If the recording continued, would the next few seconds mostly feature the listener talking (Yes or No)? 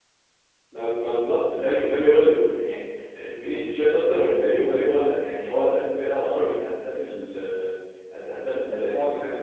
No